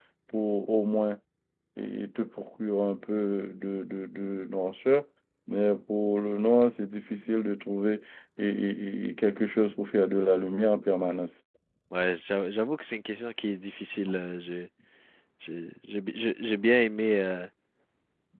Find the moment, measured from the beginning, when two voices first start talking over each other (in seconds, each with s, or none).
none